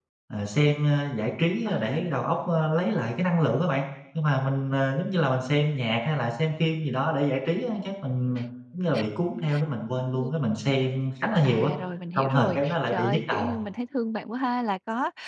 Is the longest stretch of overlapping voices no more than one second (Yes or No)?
No